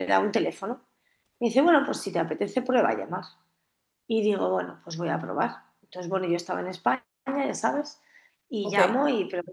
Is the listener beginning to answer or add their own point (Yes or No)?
No